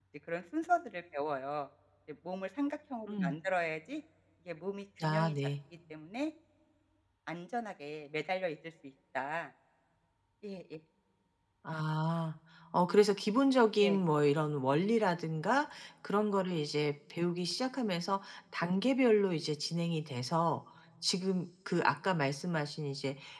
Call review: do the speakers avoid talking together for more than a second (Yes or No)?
Yes